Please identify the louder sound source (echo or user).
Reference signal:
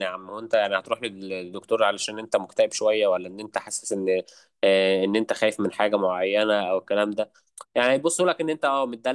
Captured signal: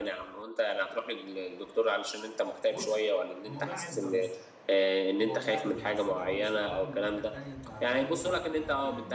echo